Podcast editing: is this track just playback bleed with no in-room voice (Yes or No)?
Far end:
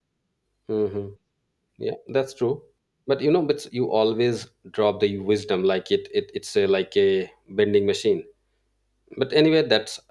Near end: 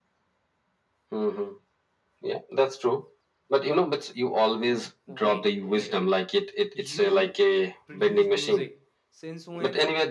No